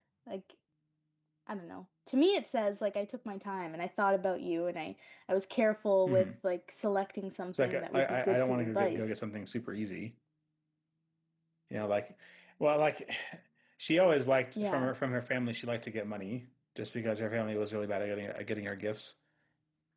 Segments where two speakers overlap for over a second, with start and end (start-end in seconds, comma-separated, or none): 7.6-9.0